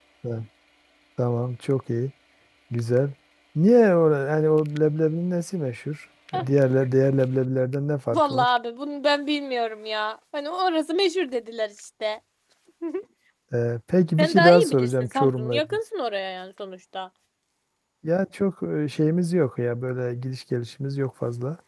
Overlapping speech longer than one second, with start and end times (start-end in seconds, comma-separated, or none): 14.2-15.8